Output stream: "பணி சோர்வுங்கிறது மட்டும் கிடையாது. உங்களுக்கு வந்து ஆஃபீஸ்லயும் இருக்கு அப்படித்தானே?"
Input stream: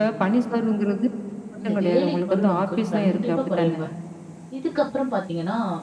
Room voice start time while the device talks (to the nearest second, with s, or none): 2 s